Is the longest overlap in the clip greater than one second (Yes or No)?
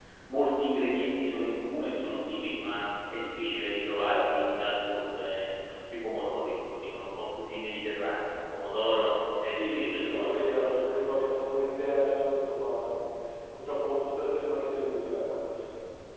Yes